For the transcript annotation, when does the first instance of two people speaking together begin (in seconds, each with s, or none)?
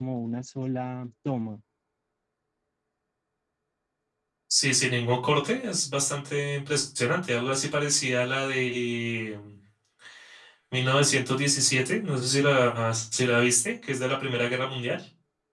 none